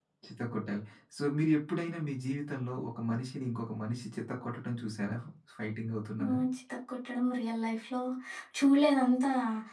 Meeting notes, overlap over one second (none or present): none